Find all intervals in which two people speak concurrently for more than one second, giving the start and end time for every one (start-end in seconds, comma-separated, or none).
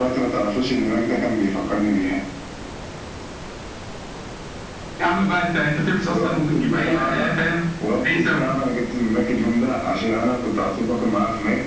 6.1-7.3